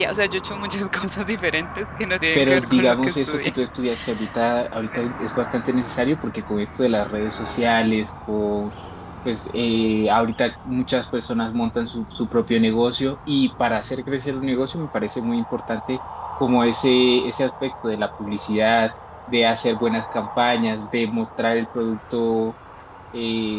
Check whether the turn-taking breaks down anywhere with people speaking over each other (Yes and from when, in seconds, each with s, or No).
Yes, from 2.4 s